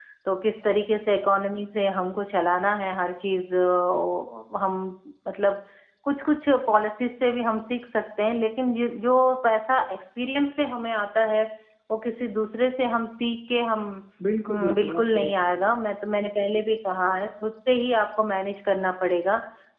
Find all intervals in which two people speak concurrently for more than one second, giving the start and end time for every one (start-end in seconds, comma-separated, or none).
14.5-15.7